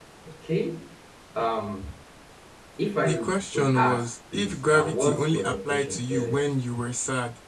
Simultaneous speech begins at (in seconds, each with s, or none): 3.0 s